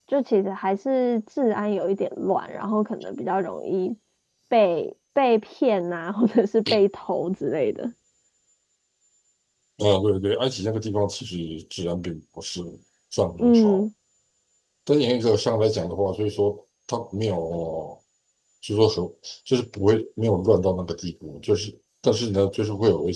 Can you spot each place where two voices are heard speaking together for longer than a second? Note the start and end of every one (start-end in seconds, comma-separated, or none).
none